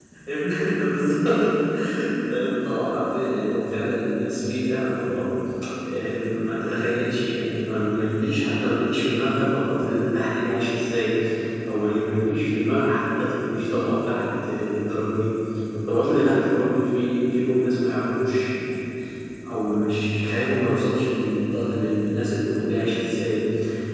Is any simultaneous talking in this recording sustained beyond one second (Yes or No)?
No